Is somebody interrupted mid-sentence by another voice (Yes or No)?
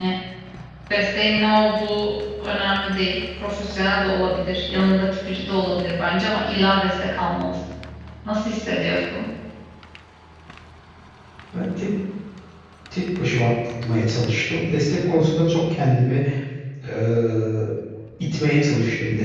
No